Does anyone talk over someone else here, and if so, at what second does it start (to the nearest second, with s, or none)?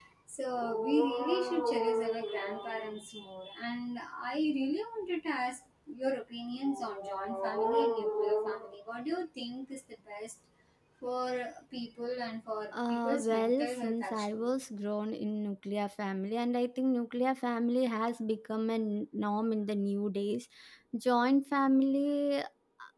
13 s